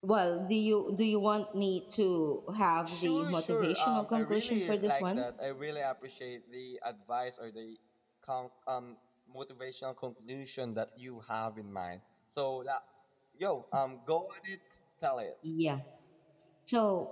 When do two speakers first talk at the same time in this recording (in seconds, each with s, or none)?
2.9 s